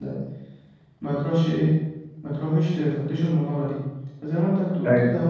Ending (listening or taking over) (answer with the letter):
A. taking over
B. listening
B